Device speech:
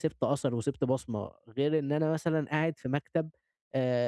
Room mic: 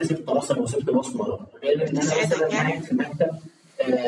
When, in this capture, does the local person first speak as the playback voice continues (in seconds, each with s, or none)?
1.8 s